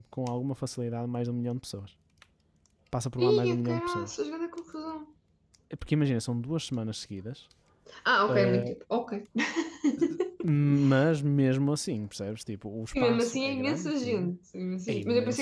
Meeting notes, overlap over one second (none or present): present